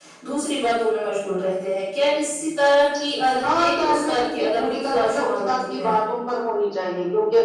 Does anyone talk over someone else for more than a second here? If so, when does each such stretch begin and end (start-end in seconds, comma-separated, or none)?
3.4-5.9